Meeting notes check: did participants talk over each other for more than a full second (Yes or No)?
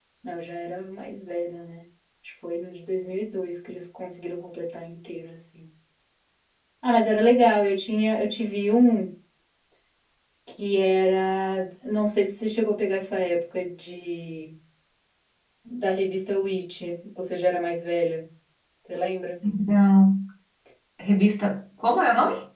No